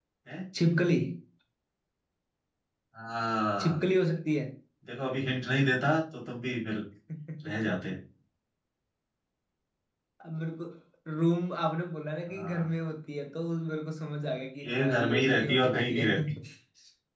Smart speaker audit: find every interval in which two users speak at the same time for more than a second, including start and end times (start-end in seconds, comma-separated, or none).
14.6-16.1